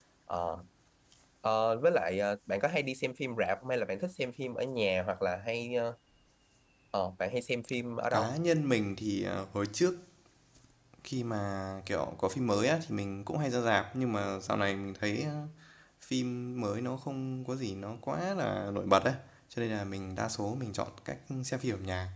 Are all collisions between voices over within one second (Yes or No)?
Yes